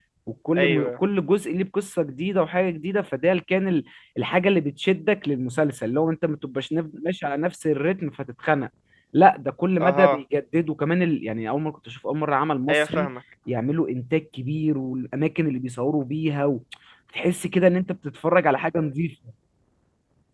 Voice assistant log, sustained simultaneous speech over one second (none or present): none